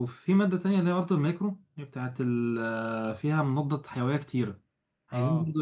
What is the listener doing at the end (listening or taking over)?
listening